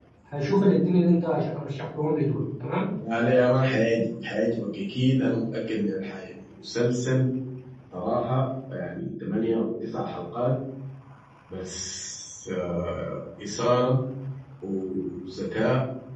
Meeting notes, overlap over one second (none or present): none